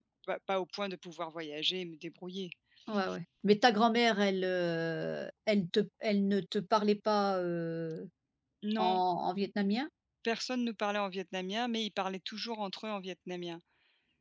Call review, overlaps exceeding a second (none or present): none